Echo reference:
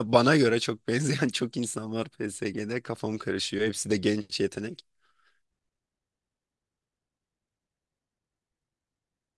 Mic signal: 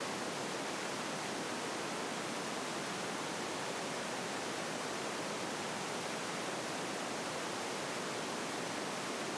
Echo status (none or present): none